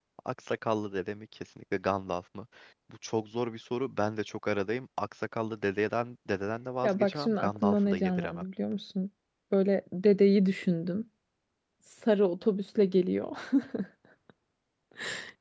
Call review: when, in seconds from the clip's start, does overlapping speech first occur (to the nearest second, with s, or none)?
7 s